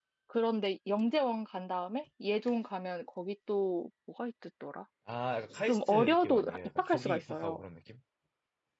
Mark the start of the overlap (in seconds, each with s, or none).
5.7 s